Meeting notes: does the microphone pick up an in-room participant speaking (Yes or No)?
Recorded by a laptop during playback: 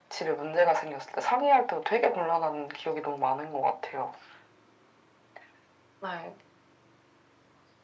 No